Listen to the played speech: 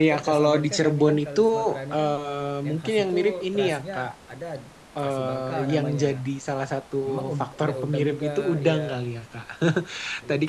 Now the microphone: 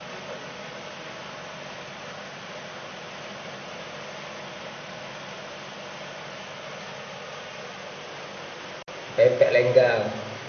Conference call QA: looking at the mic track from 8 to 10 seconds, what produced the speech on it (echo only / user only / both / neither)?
user only